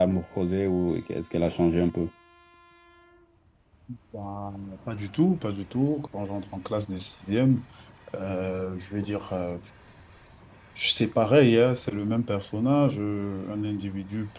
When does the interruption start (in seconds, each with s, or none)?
none